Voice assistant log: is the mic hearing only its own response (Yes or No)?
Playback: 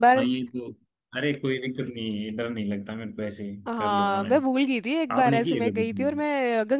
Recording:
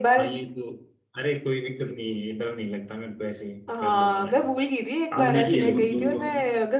No